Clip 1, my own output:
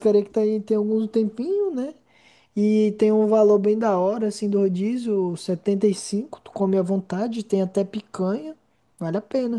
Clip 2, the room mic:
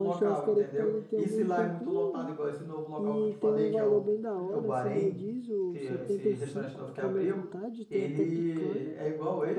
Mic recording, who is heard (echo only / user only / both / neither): both